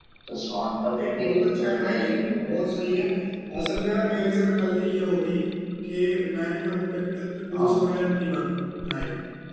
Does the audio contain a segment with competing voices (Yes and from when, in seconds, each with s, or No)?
Yes, from 0.9 s